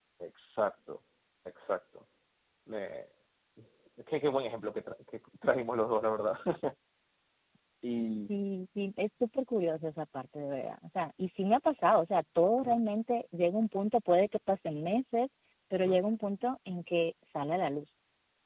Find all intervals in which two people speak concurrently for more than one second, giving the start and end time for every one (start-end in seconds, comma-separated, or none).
none